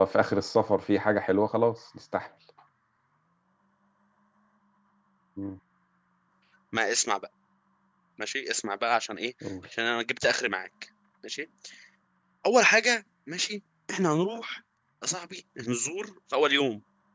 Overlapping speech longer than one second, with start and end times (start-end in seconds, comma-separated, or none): none